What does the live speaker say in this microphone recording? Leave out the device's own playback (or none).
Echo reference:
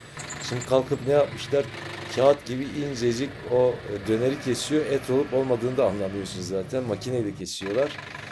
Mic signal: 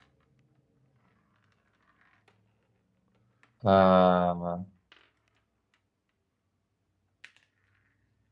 Ha.